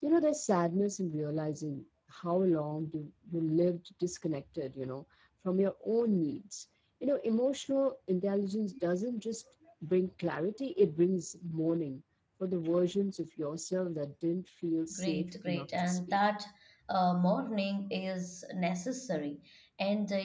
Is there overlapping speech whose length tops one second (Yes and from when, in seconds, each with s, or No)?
Yes, from 14.9 s